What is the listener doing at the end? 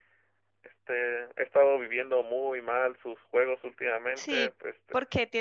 taking over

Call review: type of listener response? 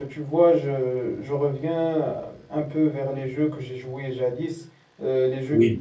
listening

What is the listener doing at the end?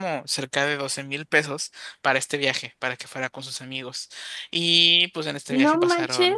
taking over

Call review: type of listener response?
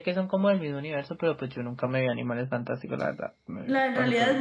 taking over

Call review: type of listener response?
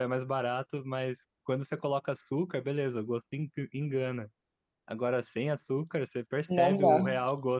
listening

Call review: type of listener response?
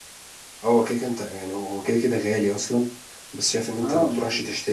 listening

